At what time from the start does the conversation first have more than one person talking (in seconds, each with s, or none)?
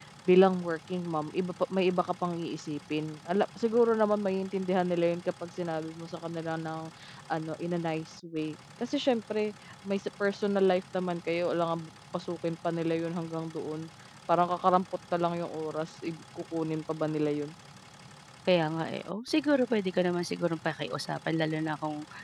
none